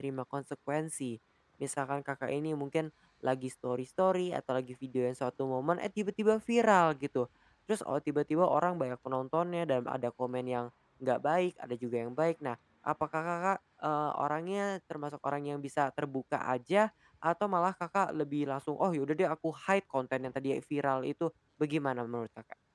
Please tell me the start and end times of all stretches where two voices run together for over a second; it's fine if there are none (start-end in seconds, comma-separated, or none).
none